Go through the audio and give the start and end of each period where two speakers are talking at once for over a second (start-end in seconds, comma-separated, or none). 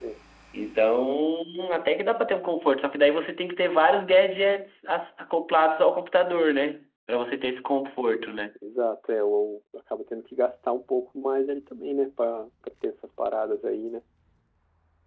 none